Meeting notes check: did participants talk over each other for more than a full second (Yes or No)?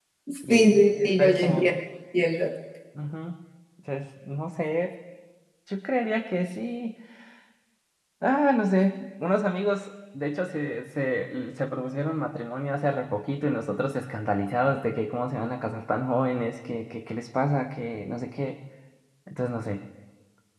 Yes